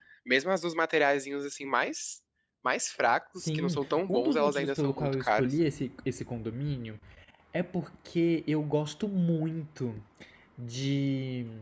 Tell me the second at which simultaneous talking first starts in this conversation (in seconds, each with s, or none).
3.4 s